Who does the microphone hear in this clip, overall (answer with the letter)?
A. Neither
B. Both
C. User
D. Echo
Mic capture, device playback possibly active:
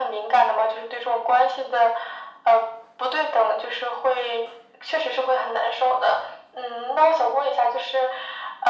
D